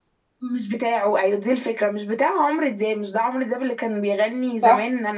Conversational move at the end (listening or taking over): listening